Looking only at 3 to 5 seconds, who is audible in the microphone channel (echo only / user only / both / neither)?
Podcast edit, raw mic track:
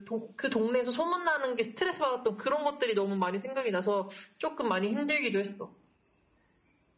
echo only